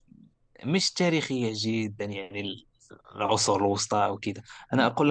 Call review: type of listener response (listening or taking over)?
listening